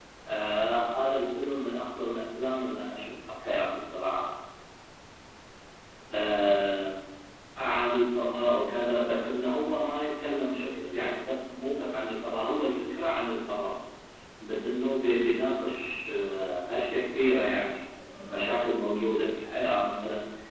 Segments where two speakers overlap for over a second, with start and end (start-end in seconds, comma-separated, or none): 8.0-9.3